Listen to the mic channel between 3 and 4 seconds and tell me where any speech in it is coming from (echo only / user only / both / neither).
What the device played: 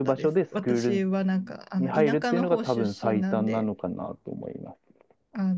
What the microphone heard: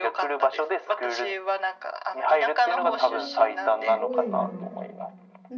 both